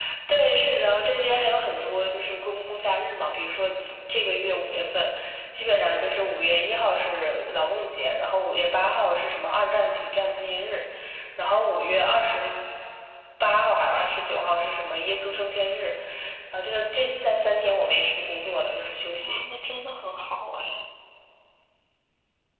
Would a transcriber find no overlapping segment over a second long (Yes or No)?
Yes